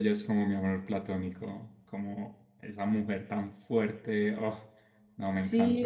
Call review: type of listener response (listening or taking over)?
taking over